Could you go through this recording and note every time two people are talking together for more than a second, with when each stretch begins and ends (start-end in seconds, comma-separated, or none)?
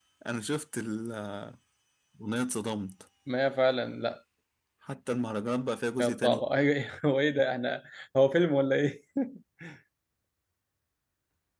none